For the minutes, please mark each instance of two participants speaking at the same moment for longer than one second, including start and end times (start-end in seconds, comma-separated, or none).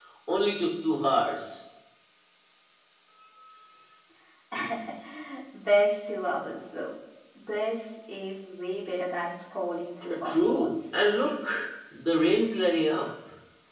10.1-11.3